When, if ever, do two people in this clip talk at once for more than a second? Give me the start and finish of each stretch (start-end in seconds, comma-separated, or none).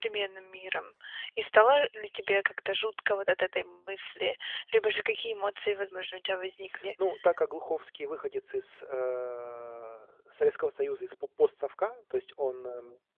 none